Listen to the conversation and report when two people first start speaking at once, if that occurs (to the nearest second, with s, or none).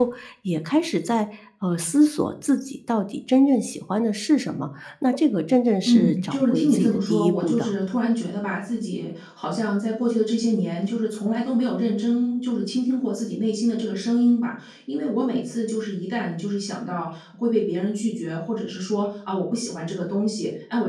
6 s